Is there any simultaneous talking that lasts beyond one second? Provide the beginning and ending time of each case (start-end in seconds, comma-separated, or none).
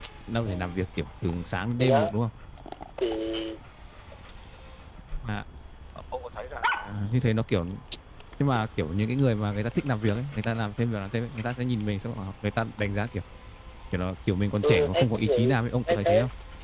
14.6-16.1